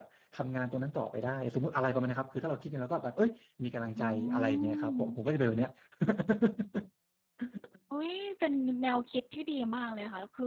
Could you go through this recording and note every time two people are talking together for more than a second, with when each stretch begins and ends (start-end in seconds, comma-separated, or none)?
4.0-5.2